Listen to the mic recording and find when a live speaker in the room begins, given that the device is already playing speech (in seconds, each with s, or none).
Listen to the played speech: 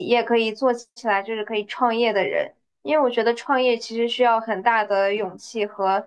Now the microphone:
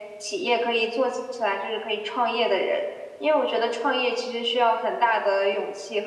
none